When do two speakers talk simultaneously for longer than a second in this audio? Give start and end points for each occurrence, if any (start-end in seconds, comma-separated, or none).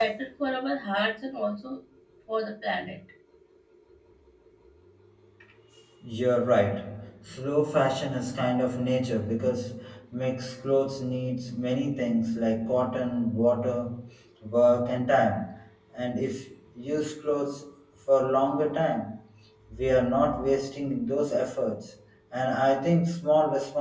none